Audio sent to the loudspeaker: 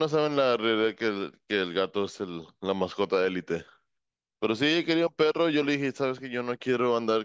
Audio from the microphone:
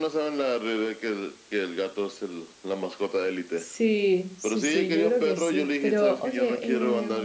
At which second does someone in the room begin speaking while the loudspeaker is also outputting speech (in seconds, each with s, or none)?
3.5 s